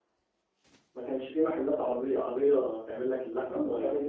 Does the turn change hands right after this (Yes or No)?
Yes